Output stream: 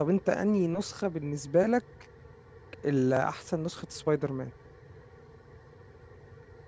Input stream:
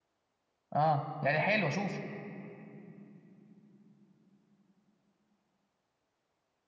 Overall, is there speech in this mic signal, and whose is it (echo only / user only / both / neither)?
user only